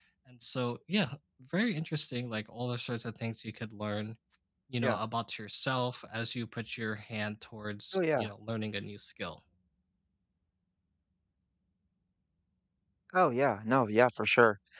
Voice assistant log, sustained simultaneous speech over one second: none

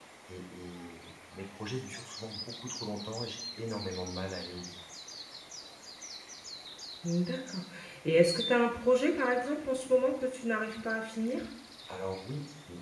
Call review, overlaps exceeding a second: none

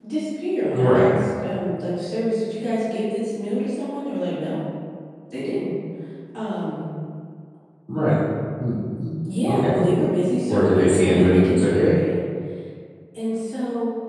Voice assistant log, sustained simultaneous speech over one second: present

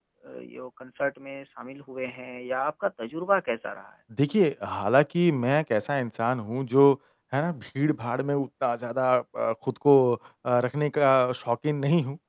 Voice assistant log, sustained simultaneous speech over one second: none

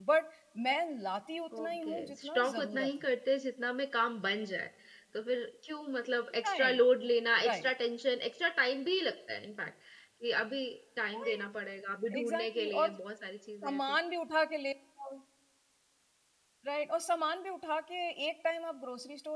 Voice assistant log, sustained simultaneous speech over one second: present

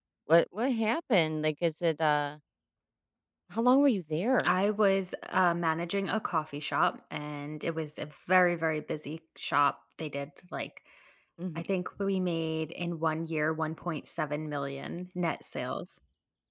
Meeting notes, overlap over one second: none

